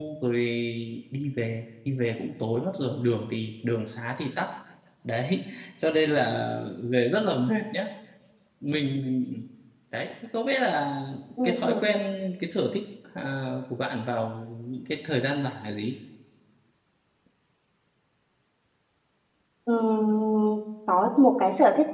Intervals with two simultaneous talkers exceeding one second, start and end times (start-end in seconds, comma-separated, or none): none